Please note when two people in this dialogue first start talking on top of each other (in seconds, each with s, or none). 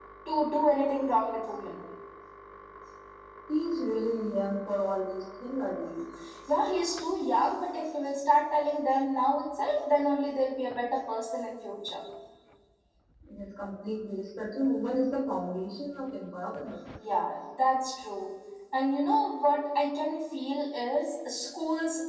none